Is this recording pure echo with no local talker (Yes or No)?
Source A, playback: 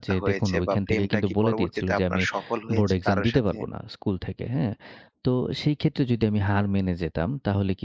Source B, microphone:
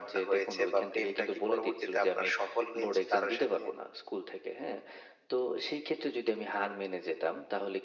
Yes